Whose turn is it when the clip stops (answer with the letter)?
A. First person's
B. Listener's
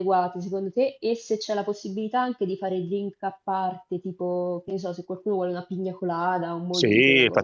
B